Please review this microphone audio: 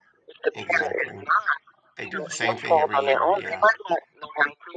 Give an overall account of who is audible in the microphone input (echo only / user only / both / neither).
both